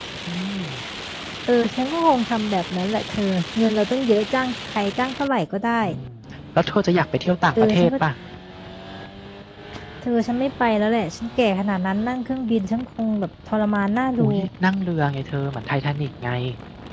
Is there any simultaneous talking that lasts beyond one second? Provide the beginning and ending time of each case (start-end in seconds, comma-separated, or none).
none